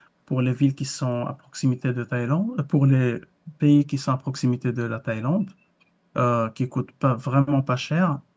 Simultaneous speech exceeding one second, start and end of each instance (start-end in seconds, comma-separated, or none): none